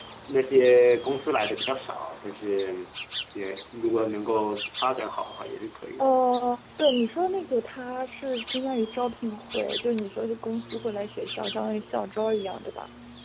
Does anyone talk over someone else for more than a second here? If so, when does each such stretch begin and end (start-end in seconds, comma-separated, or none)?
none